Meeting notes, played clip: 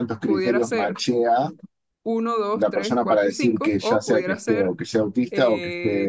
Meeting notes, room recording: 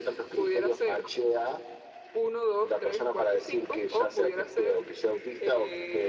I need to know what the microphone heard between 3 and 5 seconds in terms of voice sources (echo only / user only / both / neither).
echo only